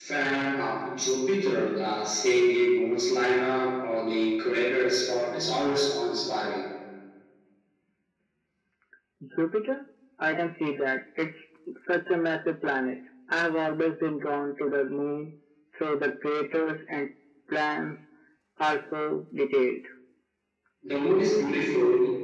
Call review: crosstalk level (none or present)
none